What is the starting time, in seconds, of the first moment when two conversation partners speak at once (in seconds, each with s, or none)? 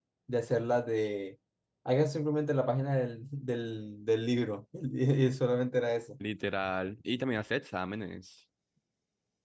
none